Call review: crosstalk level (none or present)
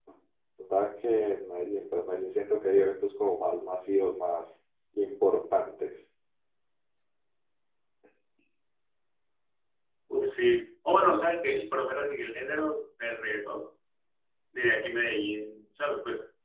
none